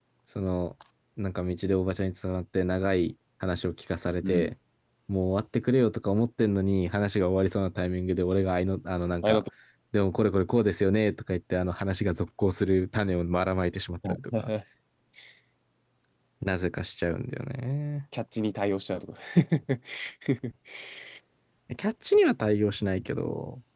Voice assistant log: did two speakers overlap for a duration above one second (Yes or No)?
No